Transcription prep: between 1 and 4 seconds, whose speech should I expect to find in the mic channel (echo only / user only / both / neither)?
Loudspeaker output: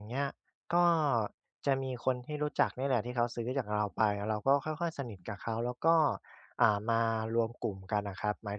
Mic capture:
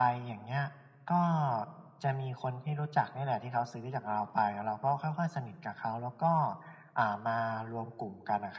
echo only